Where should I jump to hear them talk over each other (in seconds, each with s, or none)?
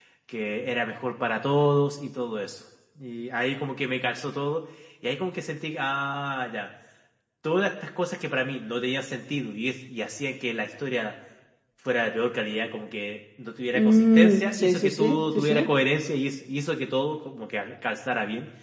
13.8 s